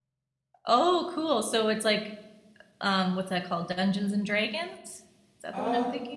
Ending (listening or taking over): taking over